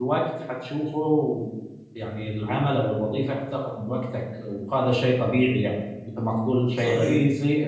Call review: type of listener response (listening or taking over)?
listening